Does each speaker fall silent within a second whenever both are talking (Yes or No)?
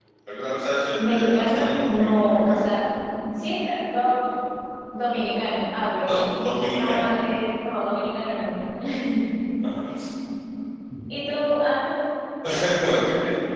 No